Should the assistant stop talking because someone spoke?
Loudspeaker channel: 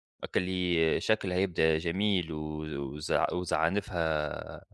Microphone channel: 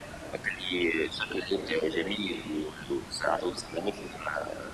No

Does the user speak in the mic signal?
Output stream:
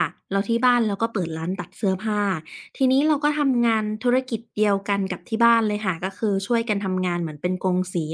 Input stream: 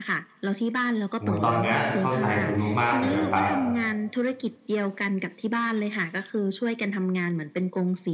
Yes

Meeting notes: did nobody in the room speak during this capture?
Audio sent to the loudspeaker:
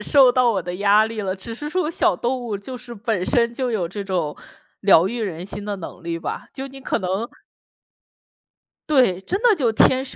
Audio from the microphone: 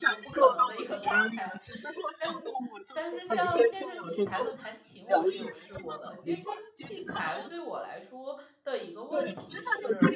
No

